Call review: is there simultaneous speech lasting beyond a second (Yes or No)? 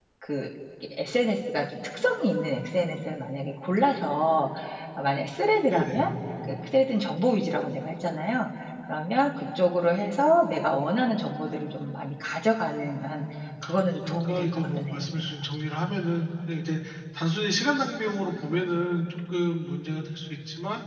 Yes